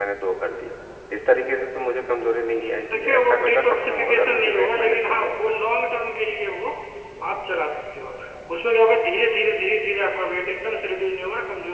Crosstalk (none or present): present